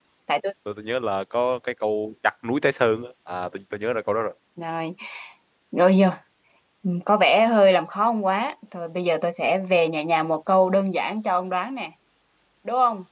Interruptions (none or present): none